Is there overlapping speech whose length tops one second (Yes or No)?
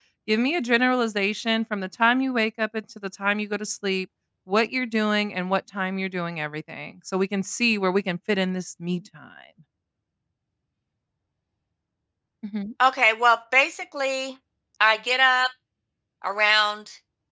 No